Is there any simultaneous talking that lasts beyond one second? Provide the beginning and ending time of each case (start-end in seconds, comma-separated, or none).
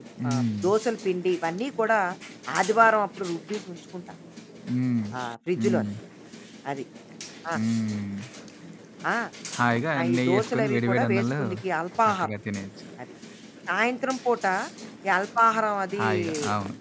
10.0-11.4